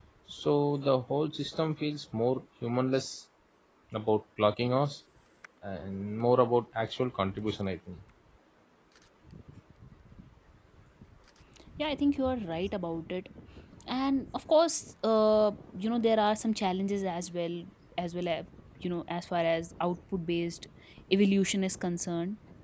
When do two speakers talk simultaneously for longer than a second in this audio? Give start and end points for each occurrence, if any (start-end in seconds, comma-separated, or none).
none